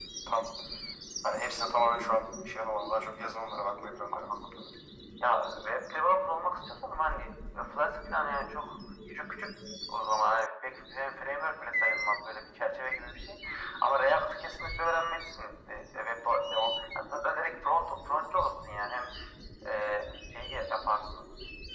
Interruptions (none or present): none